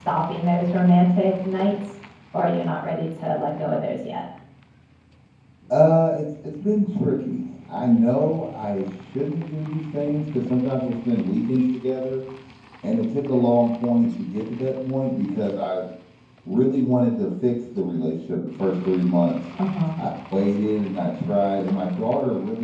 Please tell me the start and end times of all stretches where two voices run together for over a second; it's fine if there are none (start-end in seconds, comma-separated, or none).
none